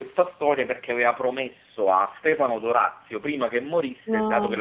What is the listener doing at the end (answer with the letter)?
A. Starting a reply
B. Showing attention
B